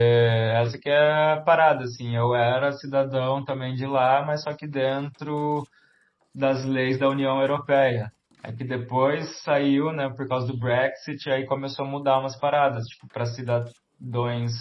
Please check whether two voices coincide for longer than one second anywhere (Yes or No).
No